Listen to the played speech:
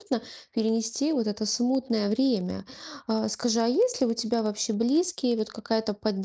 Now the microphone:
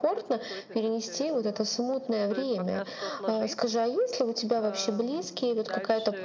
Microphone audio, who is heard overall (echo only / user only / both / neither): both